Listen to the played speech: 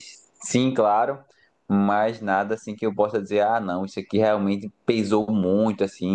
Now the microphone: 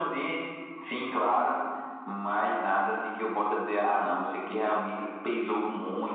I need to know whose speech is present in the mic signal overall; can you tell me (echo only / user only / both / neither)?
echo only